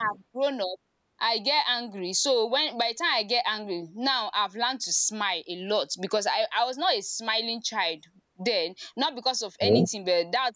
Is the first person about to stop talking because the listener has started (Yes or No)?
No